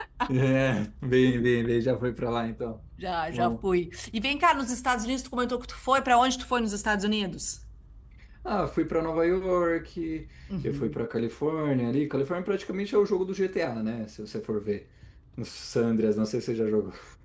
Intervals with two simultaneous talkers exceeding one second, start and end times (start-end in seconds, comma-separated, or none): none